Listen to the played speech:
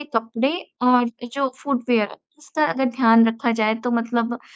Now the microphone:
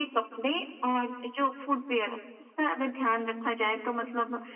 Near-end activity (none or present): none